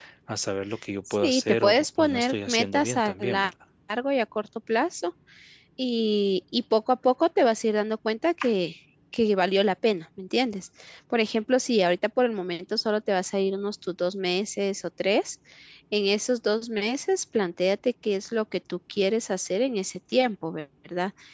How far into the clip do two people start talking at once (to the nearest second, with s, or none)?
1 s